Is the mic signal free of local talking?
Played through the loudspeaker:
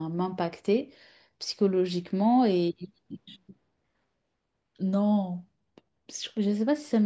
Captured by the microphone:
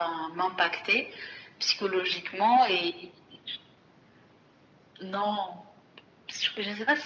Yes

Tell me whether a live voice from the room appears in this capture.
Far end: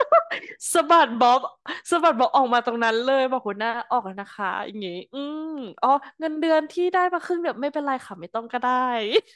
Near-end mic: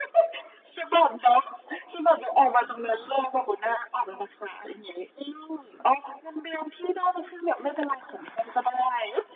No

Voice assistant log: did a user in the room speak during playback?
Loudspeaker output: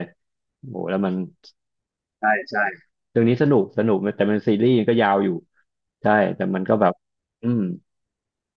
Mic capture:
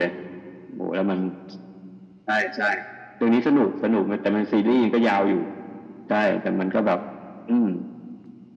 No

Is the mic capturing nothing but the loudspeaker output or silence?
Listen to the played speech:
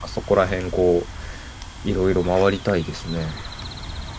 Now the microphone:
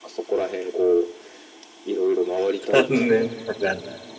No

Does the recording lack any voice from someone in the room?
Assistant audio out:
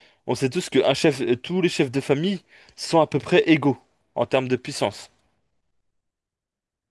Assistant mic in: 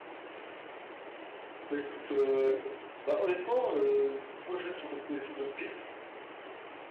No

